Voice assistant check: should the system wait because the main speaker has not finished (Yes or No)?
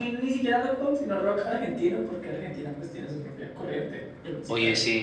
No